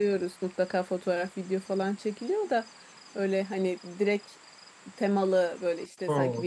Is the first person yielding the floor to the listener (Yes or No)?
No